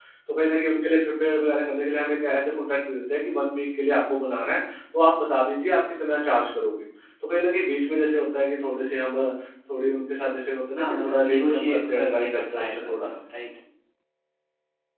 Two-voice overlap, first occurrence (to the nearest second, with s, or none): 11 s